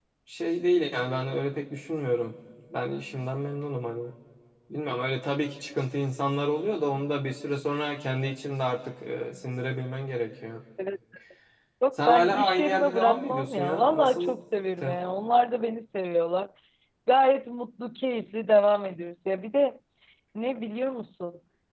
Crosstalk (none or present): present